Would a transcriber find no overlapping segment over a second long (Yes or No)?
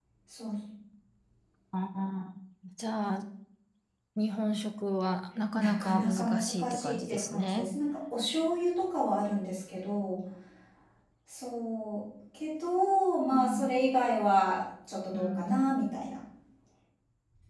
No